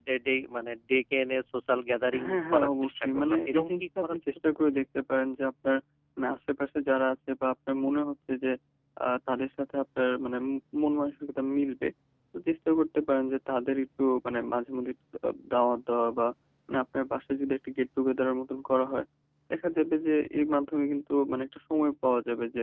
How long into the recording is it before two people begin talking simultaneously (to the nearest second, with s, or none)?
2 s